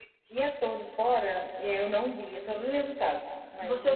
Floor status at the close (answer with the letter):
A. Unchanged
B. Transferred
B